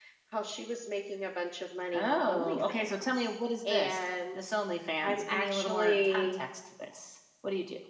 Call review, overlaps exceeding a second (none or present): present